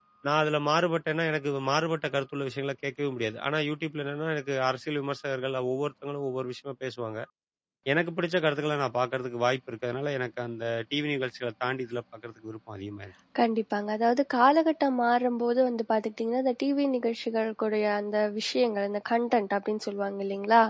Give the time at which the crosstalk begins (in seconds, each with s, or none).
none